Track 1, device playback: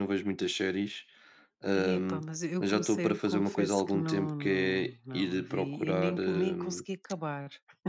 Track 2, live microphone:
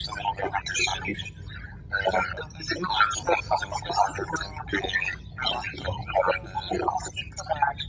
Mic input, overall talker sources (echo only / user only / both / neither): echo only